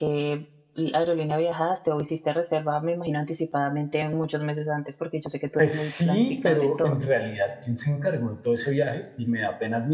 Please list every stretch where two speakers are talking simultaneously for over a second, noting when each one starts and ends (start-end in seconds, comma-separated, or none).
5.6-7.0